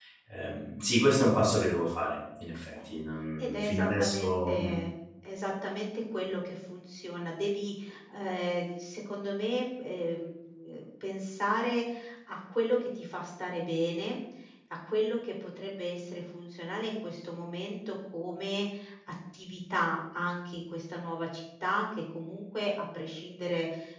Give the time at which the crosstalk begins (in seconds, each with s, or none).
3.4 s